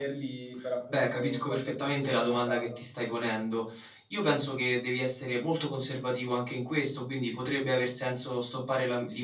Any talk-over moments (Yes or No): Yes